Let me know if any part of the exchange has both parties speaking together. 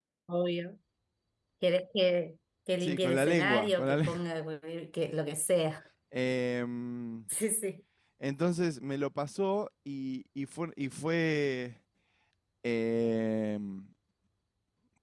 Yes, from 2.8 s

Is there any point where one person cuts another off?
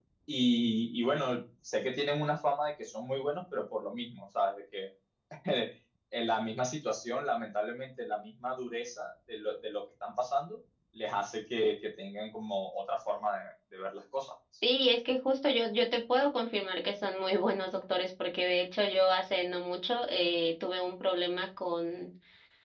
No

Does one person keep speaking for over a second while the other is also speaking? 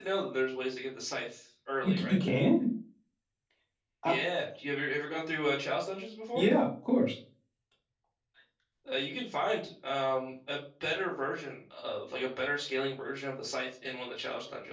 No

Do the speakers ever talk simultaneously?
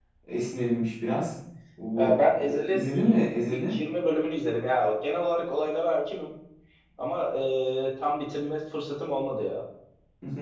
Yes, from 2.0 s

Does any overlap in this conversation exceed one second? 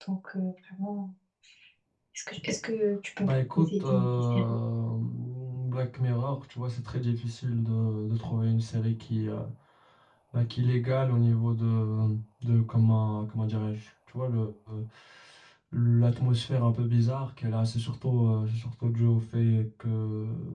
Yes, from 3.2 s

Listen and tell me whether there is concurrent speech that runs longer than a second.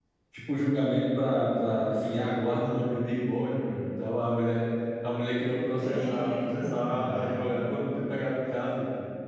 Yes, from 5.8 s

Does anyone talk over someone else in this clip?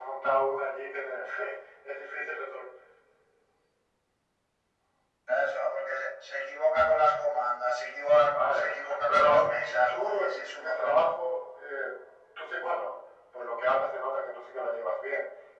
Yes, from 8.2 s

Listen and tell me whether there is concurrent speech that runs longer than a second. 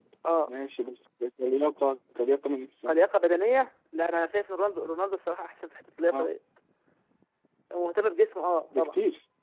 No

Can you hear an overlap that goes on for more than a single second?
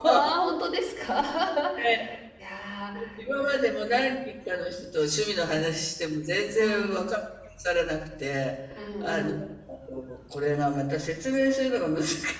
No

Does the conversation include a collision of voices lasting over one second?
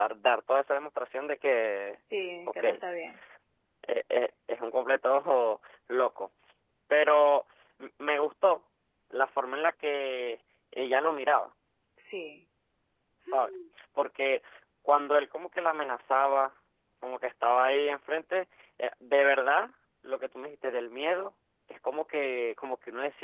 No

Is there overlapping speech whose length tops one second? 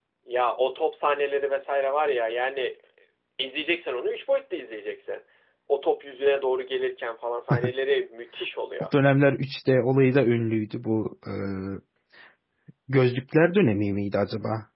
No

